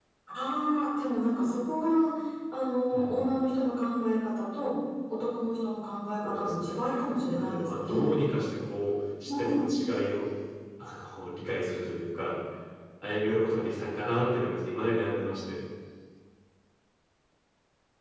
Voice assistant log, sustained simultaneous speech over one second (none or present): present